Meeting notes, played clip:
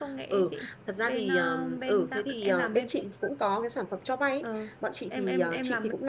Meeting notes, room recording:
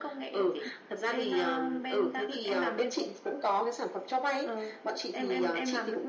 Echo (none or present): present